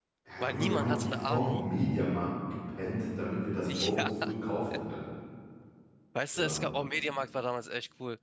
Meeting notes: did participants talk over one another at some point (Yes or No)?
Yes